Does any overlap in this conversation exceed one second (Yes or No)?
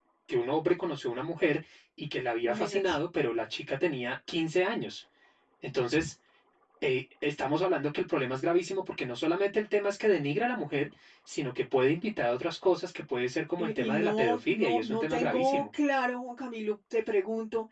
Yes